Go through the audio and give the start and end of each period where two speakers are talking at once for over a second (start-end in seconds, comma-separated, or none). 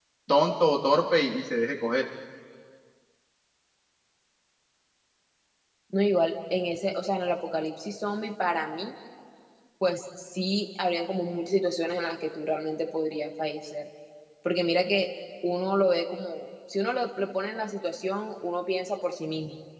none